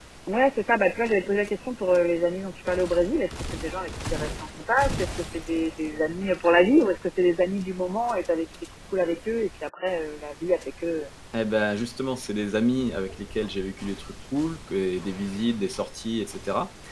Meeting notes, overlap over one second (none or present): none